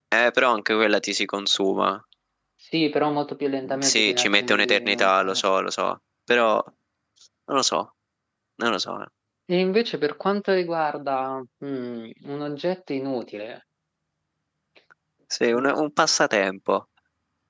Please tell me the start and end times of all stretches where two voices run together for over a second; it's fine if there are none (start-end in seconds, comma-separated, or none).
3.6-5.4